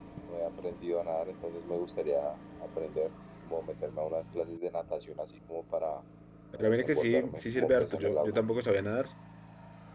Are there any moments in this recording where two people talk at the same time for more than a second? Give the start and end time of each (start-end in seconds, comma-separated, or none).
6.6-8.4